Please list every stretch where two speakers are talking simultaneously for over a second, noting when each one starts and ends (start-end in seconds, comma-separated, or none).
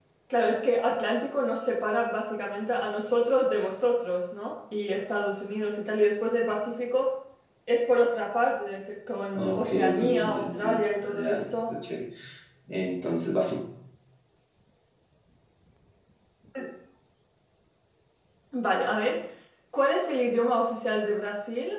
9.3-11.7